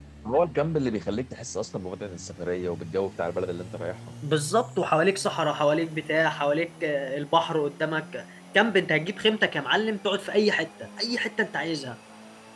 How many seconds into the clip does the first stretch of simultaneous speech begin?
none

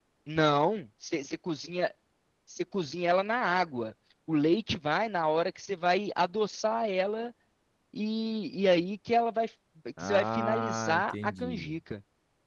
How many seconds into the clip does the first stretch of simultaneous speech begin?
10.0 s

